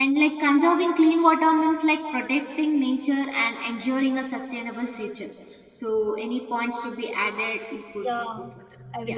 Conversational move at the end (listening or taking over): taking over